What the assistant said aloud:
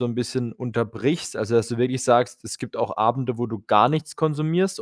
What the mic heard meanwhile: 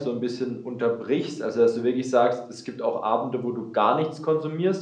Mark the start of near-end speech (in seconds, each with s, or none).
none